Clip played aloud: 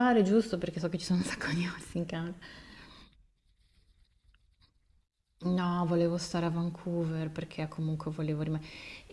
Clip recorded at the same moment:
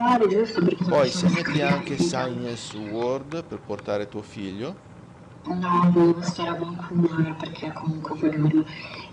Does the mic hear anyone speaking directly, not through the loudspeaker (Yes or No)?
Yes